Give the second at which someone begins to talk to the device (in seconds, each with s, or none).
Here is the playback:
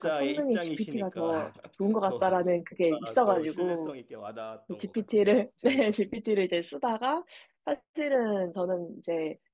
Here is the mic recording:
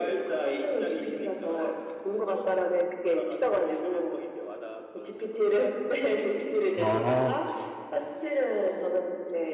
6.7 s